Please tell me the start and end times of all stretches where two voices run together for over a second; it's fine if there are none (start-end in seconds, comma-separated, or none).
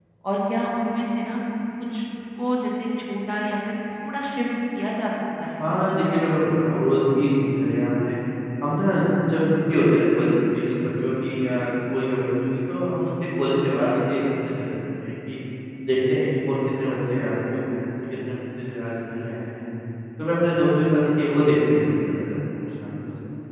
none